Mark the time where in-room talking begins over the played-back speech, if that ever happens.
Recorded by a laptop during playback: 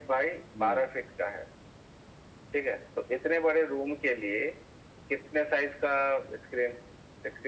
1 s

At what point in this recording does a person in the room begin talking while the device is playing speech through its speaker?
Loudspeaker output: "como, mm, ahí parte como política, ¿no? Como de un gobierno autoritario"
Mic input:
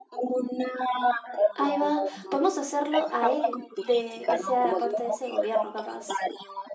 2 s

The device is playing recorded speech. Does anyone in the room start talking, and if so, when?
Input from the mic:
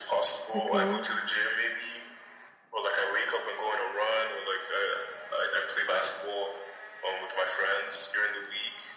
1 s

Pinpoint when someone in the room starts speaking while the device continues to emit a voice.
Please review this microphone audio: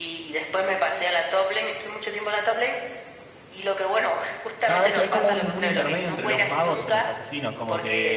5 s

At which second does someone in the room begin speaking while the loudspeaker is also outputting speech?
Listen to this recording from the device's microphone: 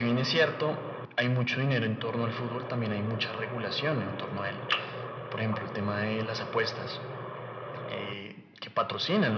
none

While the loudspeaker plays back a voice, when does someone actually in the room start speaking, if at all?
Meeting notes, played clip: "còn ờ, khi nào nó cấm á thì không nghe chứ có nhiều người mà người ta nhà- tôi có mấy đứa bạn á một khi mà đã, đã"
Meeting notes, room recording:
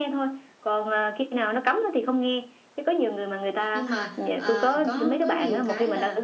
4 s

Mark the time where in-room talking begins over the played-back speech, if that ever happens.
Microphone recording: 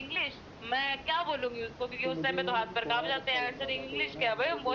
2 s

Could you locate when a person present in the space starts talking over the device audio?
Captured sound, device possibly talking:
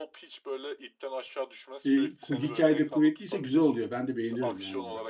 2 s

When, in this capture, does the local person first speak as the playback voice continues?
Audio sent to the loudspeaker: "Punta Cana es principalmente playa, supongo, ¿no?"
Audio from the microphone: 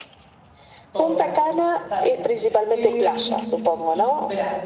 1 s

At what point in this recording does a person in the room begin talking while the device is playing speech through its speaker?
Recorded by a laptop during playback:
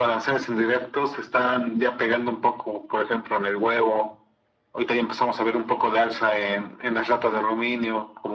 none

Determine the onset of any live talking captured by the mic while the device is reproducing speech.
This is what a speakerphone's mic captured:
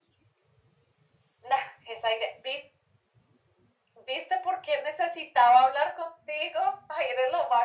none

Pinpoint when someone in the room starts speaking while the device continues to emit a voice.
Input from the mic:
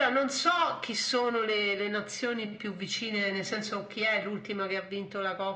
none

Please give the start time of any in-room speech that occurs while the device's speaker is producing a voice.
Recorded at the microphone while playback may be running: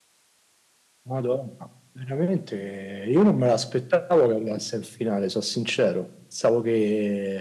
none

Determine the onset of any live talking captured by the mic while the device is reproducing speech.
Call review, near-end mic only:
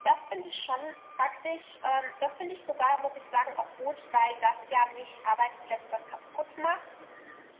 none

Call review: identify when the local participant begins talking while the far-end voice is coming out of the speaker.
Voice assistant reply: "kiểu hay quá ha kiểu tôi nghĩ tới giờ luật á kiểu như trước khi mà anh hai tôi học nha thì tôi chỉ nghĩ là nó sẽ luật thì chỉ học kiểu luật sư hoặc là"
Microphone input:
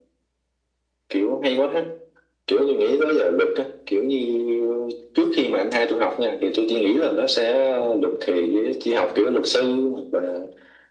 none

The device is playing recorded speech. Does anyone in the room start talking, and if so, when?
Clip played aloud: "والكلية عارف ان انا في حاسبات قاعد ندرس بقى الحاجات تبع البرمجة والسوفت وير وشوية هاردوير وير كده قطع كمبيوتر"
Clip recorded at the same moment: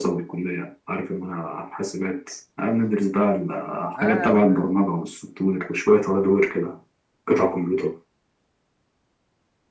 4 s

